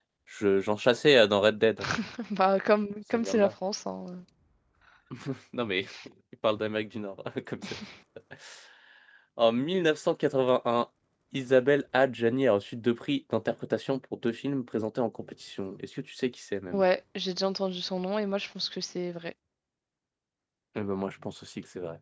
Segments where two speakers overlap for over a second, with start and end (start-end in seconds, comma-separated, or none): none